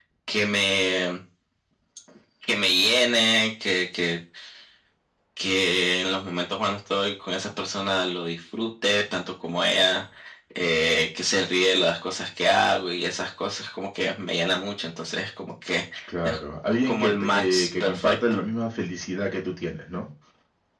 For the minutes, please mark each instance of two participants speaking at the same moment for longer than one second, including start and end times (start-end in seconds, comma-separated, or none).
16.9-18.1